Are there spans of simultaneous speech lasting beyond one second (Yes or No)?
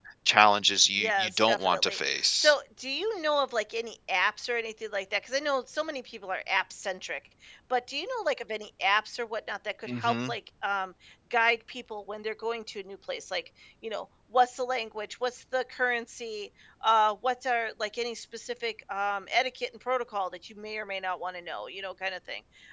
Yes